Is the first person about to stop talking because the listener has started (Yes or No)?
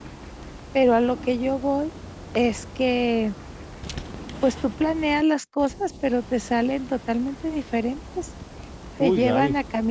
No